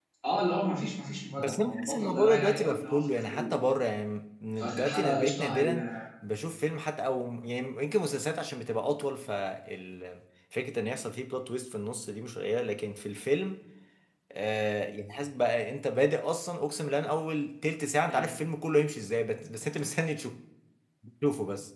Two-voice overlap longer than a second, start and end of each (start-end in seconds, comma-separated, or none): 1.4-3.6, 4.6-5.8